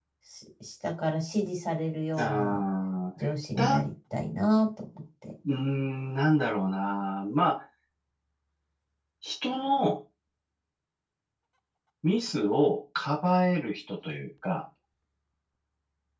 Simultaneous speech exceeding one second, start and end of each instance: none

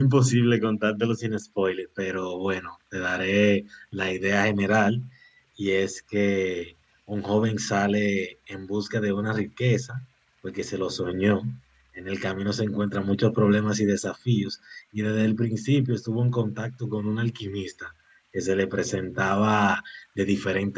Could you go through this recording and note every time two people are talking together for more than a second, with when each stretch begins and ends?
none

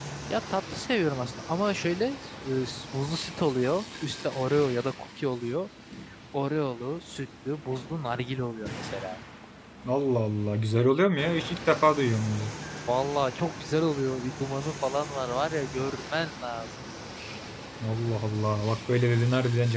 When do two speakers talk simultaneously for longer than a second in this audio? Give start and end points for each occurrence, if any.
none

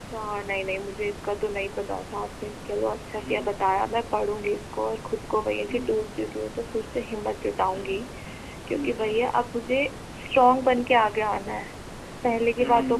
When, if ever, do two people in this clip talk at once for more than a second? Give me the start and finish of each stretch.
none

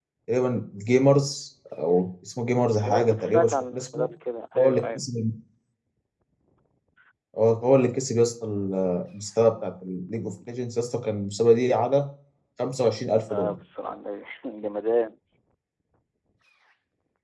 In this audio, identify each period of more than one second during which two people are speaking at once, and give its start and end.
2.8-4.1

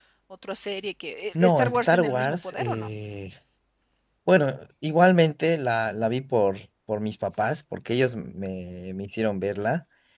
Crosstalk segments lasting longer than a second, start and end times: 1.4-2.9

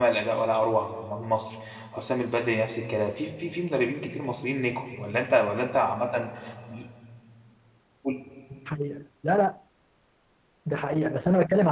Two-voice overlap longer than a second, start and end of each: none

